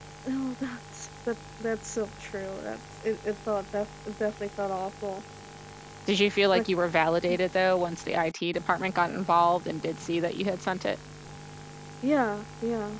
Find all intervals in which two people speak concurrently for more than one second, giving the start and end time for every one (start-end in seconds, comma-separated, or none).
none